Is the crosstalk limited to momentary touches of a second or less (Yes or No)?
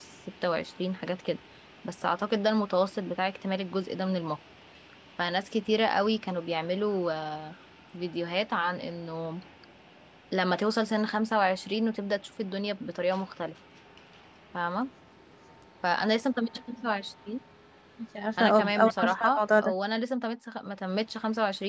No